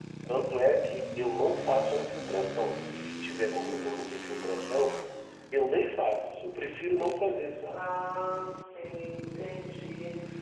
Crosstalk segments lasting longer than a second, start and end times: none

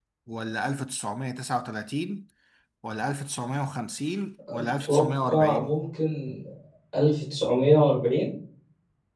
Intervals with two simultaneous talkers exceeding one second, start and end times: 4.5-5.8

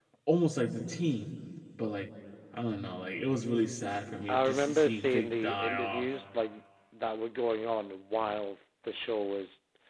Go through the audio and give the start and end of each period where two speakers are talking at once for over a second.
4.3-6.1

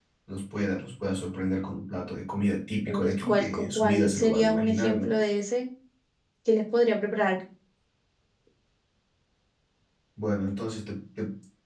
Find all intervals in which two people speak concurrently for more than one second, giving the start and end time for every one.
2.9-5.1

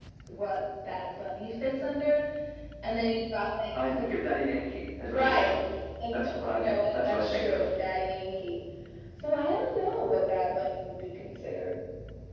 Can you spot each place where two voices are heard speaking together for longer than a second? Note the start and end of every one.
6.1-7.6

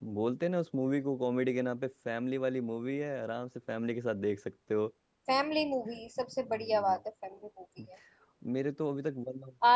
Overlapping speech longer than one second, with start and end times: none

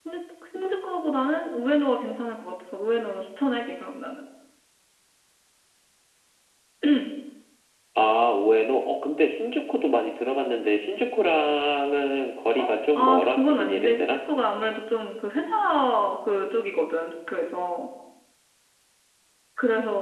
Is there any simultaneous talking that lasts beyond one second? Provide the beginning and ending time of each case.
12.6-14.1

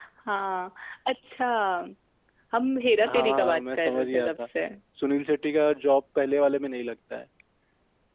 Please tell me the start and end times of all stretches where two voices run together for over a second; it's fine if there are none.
3.0-4.5

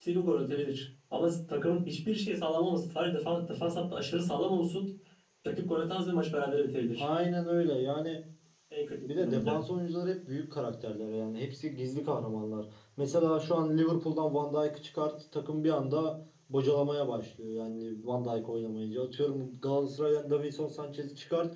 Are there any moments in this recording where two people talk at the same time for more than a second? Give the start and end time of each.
none

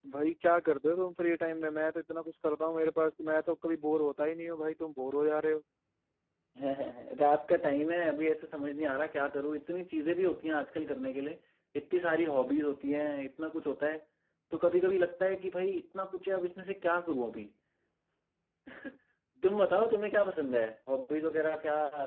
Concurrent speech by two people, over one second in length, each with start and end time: none

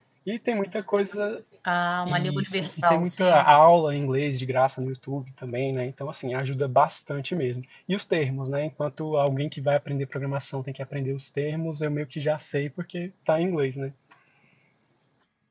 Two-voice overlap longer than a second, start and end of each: 2.0-3.5

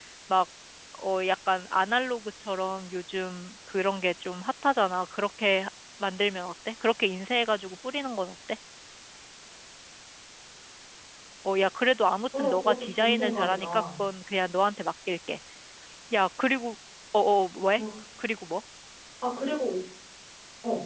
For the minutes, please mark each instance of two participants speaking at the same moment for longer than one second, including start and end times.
12.4-13.8

